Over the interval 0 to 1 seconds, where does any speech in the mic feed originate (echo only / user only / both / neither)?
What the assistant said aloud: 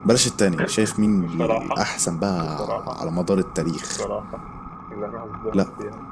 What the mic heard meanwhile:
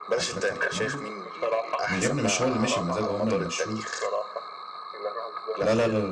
both